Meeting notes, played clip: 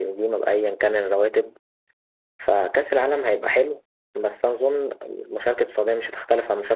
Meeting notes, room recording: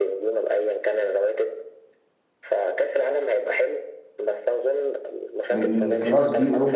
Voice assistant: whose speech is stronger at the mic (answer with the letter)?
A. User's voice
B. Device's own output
A